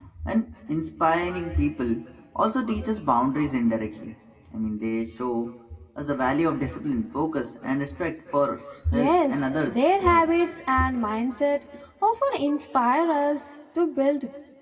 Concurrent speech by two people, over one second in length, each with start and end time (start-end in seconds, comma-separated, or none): 8.9-10.3